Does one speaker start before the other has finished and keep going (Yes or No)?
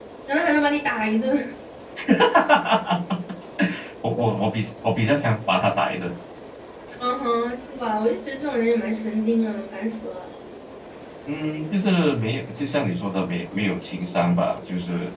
No